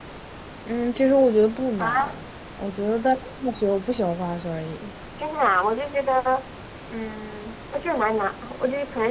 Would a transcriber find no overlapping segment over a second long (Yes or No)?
Yes